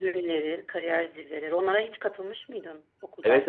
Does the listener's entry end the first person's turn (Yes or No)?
Yes